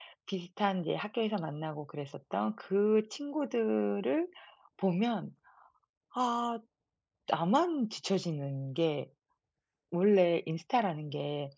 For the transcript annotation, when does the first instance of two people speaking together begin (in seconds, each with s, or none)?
none